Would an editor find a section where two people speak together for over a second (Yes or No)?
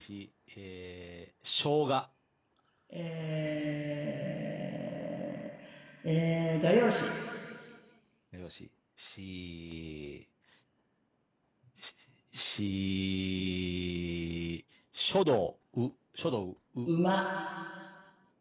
No